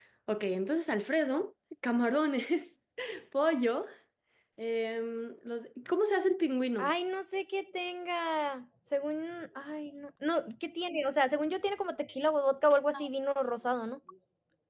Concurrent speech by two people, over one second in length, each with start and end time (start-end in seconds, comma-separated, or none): none